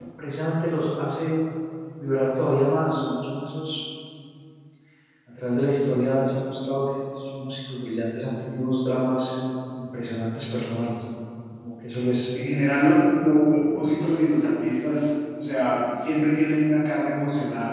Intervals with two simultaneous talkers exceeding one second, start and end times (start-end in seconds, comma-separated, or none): none